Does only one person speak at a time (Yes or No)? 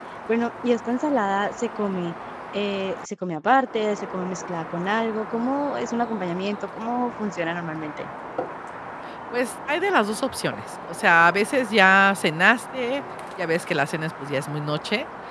Yes